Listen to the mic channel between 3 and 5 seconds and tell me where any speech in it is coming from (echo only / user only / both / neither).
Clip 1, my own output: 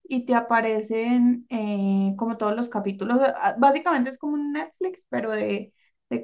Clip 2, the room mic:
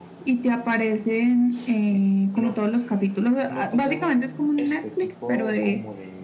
both